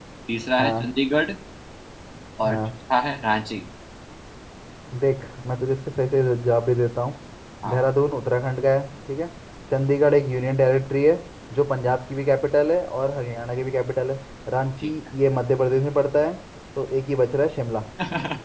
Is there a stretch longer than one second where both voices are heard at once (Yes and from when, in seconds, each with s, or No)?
No